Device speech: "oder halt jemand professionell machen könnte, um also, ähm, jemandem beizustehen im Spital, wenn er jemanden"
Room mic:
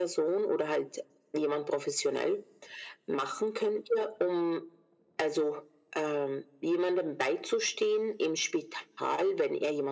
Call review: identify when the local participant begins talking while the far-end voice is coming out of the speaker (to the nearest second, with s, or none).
none